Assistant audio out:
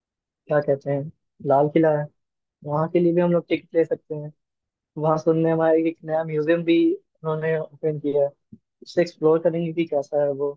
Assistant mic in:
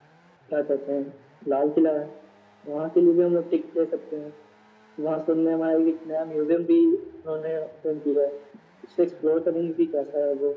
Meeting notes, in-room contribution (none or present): none